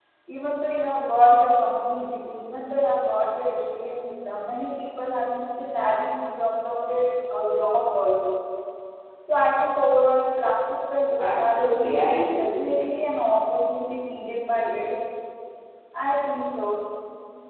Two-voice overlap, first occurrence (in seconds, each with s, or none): 11.2 s